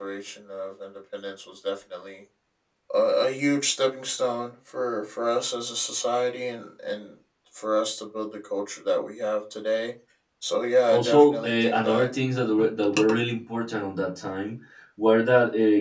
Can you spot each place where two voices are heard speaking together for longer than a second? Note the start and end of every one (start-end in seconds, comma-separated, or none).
10.9-12.1